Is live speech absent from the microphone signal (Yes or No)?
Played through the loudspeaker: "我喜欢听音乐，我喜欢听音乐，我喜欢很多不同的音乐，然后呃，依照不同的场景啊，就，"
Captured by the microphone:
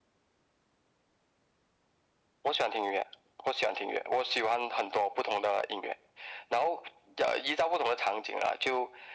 Yes